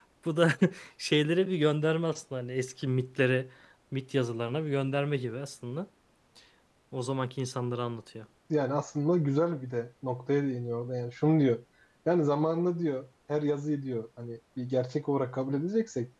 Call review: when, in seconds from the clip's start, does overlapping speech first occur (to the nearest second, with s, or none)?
none